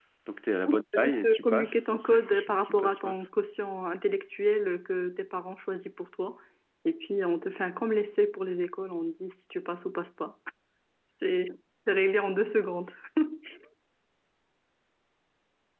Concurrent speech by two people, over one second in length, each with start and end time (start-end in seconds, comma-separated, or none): 1.0-3.2